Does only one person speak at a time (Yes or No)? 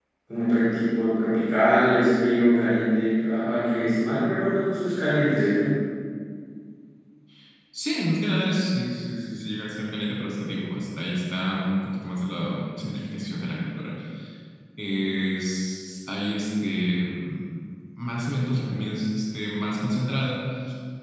Yes